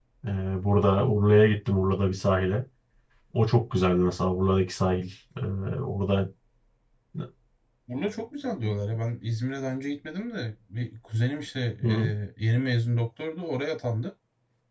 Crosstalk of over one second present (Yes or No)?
No